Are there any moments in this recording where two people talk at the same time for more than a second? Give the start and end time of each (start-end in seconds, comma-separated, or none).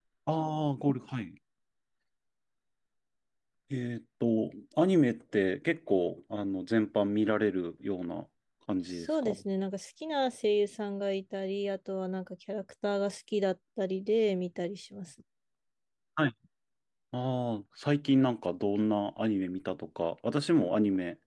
none